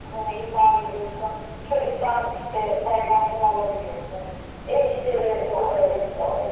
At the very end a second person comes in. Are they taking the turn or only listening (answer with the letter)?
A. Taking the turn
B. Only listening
B